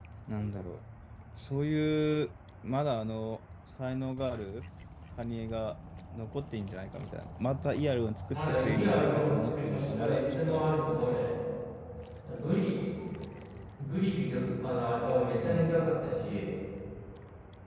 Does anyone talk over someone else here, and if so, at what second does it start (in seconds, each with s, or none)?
8.3 s